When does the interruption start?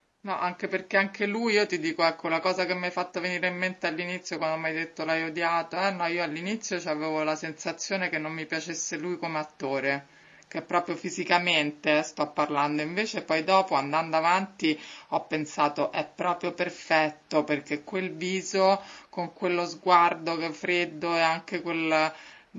none

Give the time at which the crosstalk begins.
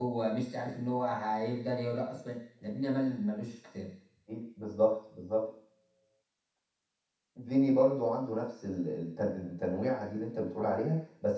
none

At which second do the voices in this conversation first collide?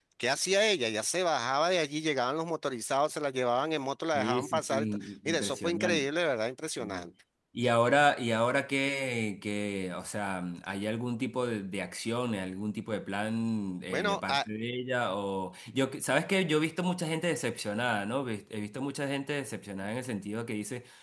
4 s

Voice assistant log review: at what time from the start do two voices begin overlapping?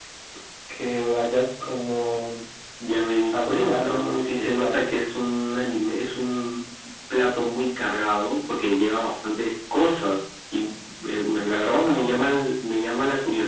3 s

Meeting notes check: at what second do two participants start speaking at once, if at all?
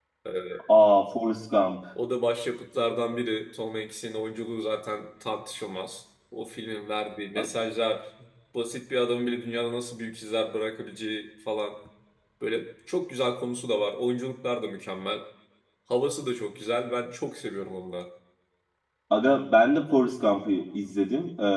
none

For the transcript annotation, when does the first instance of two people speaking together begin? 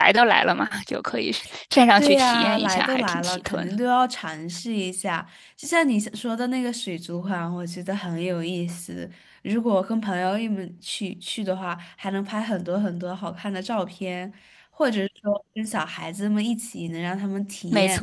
2 s

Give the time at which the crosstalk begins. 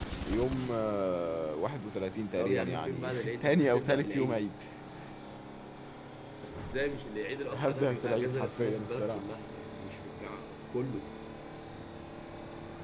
2 s

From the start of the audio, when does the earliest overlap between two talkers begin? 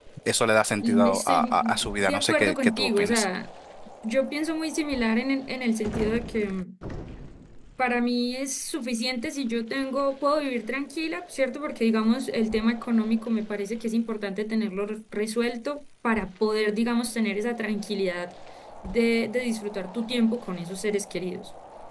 1 s

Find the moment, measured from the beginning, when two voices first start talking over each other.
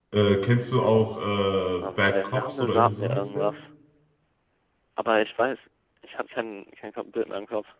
2 s

